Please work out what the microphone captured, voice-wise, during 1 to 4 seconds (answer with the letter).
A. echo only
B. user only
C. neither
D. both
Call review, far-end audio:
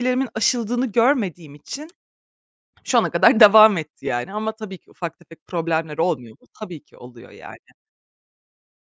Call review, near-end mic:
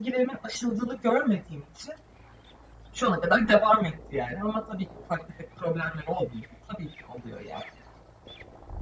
A